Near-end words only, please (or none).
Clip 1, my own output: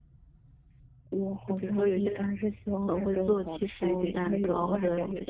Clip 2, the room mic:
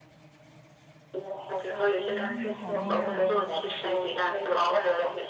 哇，那你好厉害啊，